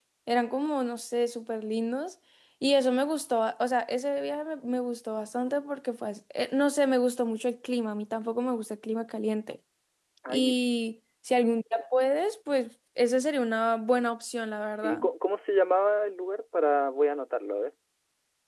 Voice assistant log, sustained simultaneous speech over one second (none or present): none